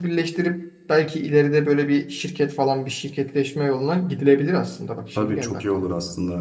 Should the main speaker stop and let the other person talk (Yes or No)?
Yes